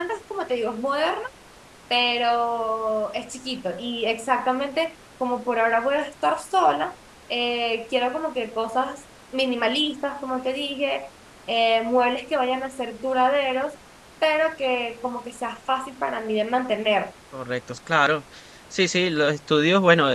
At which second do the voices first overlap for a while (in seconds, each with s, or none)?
none